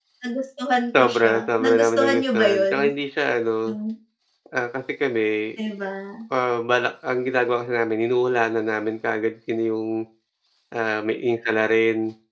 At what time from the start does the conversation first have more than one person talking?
1.0 s

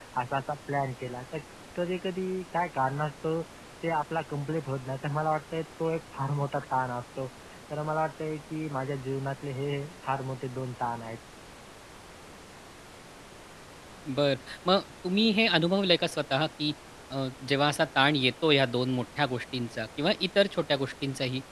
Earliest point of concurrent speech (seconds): none

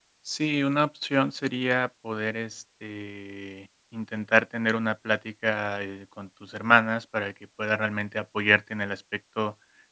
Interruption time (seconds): none

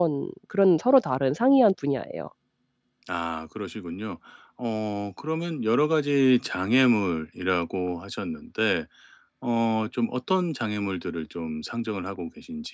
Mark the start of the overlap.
none

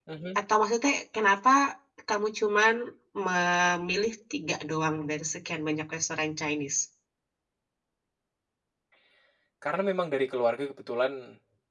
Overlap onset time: none

